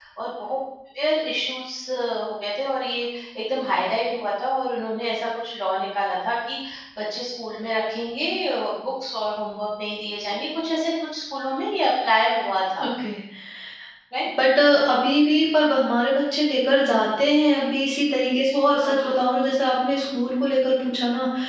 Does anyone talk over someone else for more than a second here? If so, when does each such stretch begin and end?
none

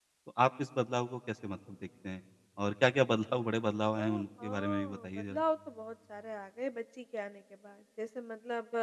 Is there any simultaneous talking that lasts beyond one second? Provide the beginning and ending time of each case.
4.0-5.4

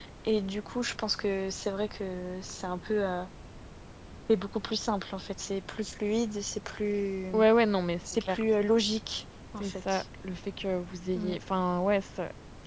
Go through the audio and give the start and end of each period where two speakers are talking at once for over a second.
none

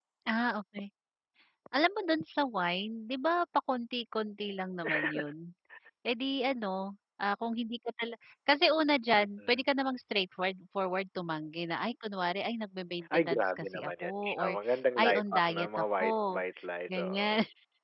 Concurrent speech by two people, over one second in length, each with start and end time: 13.1-14.5, 15.0-16.4

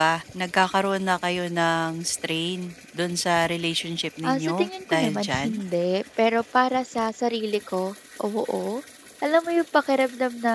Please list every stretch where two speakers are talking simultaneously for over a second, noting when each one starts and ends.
4.2-5.6

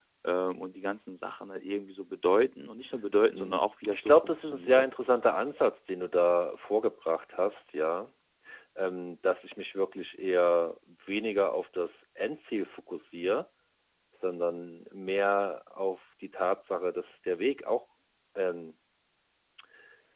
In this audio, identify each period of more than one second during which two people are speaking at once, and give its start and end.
3.3-4.9

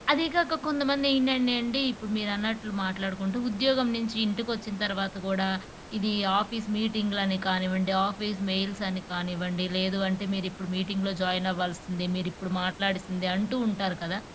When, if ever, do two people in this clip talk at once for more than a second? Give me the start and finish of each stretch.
none

